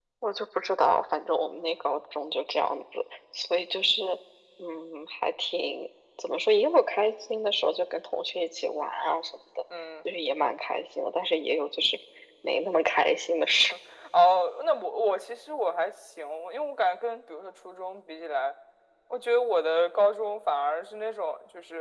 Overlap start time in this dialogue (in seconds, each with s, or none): none